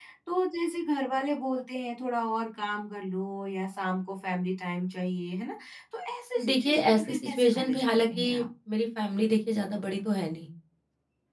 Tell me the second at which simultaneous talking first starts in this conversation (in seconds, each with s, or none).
6.4 s